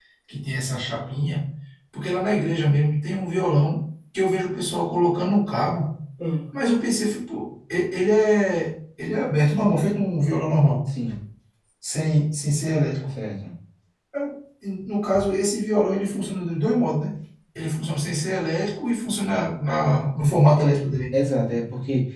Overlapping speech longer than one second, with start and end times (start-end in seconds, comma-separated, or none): none